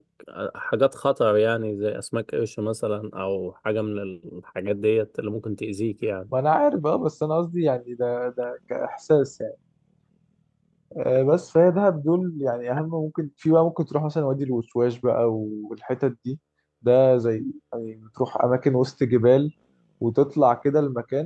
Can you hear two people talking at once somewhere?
No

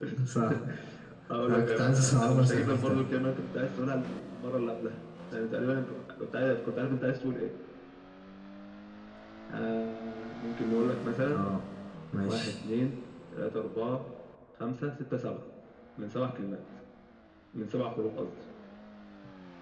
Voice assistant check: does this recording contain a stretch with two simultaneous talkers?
Yes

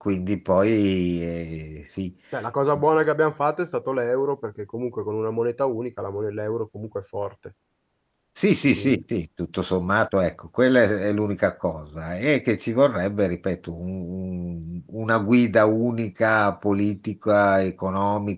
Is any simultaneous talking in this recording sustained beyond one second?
No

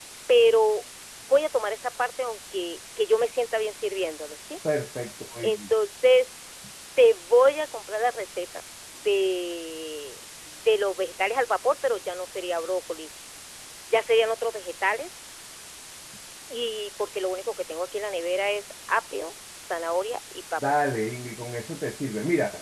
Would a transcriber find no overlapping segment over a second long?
Yes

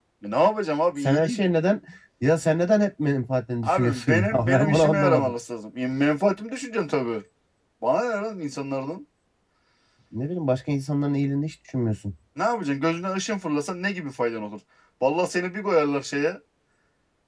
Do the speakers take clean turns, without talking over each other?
No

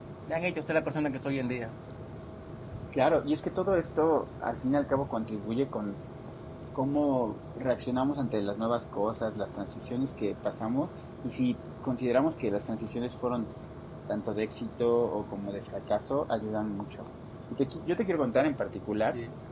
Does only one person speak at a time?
Yes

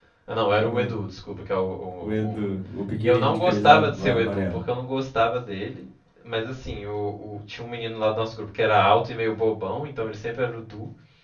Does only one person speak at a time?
No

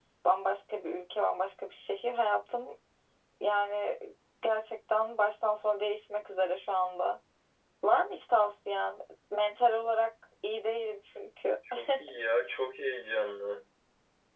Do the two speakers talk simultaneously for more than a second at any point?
No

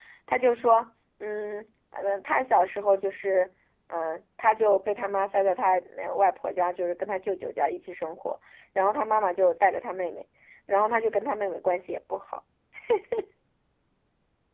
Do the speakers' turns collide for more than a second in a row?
No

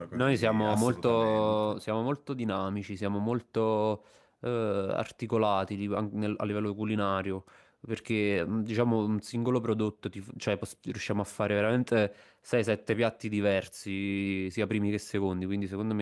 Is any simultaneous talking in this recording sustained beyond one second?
Yes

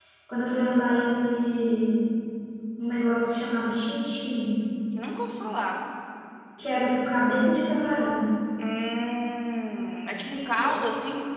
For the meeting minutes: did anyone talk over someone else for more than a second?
No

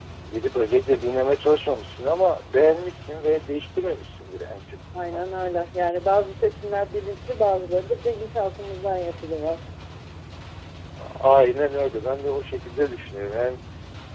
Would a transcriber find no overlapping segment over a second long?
Yes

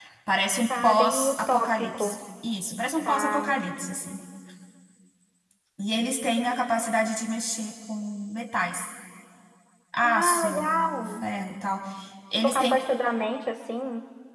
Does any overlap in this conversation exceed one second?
Yes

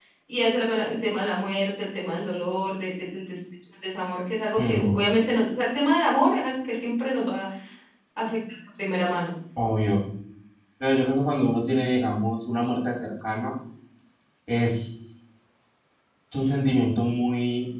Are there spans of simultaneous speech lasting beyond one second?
No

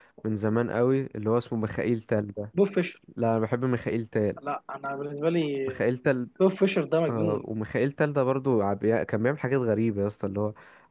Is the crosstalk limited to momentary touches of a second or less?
Yes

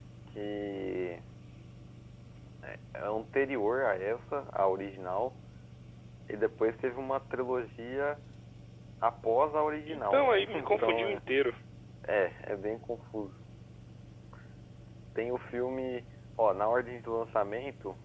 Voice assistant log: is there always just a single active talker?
No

